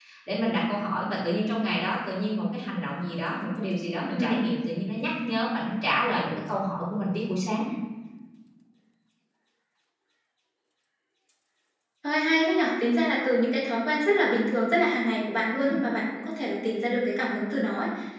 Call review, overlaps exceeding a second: none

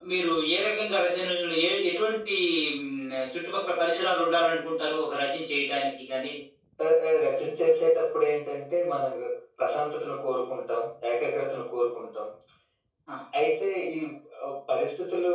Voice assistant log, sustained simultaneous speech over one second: none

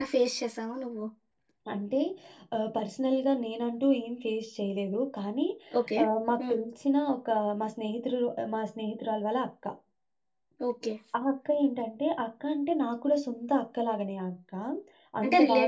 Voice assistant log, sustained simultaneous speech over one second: none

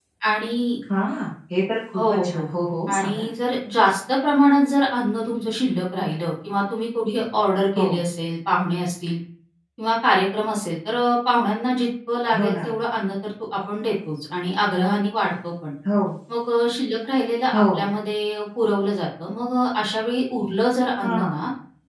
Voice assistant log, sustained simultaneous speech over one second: none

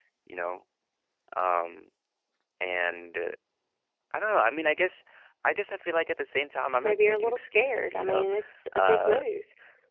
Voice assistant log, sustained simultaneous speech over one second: present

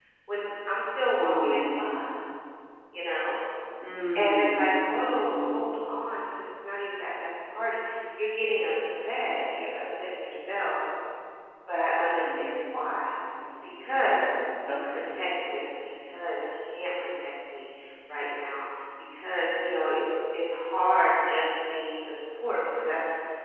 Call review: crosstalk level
present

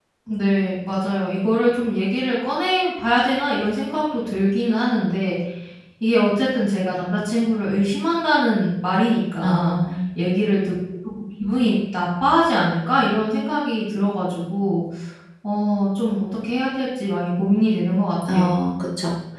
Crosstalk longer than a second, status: none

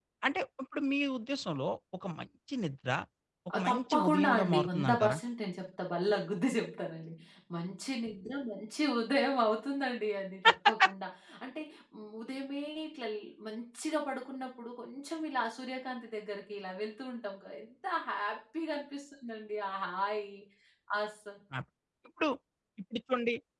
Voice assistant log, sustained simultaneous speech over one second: present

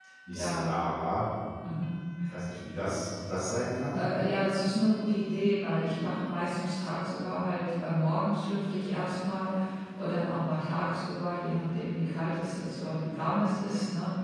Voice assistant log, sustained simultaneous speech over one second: none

